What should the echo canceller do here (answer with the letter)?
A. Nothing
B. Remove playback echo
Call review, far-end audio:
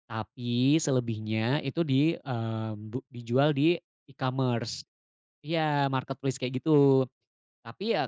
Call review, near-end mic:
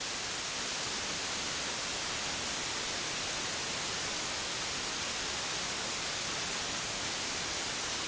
A